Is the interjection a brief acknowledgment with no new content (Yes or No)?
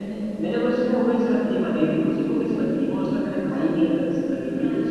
No